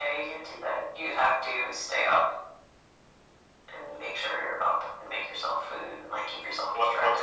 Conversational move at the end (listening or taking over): taking over